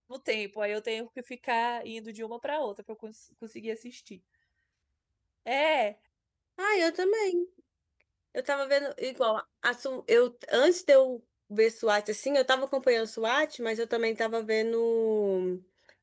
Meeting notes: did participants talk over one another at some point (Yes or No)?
No